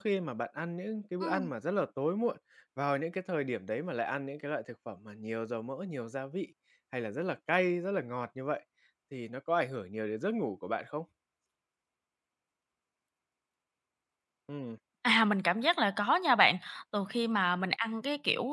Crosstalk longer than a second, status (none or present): none